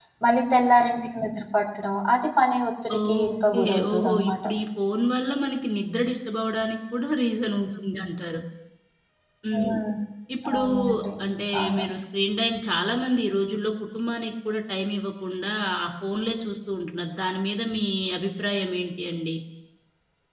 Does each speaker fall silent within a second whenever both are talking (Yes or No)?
No